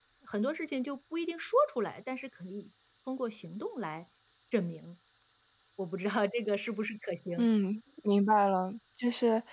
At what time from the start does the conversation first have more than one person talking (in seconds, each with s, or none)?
none